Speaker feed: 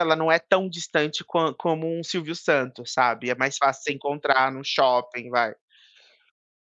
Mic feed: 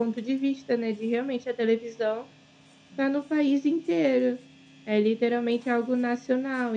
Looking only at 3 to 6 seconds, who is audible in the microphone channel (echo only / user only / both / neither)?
user only